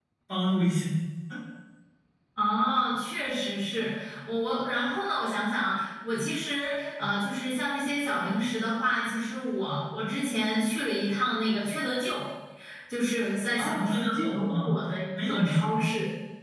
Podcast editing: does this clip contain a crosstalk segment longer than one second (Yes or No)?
Yes